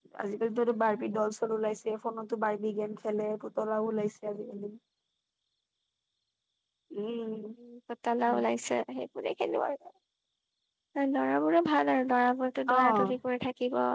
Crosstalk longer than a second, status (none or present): none